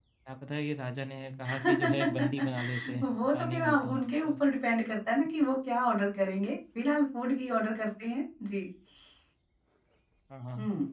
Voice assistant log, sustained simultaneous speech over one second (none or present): present